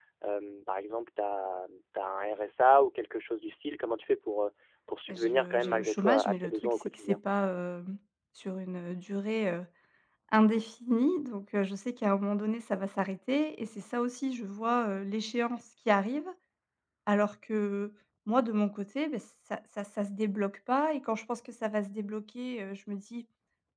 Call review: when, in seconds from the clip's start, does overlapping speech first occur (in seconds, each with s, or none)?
5.1 s